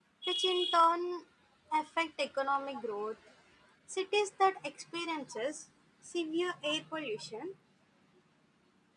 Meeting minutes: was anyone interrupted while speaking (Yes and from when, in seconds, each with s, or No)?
No